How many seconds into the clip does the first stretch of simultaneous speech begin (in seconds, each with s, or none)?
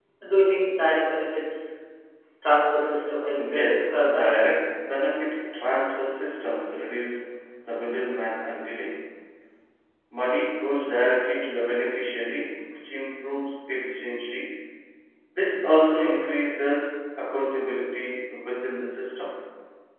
3.3 s